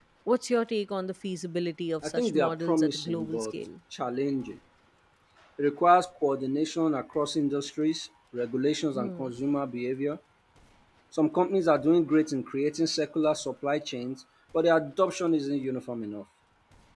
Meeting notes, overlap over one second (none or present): present